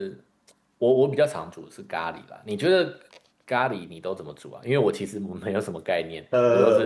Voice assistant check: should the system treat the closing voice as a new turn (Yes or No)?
Yes